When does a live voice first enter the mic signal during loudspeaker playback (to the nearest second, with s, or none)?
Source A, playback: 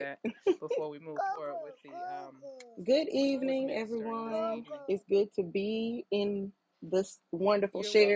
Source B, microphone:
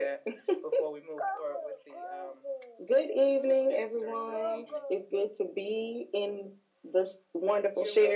none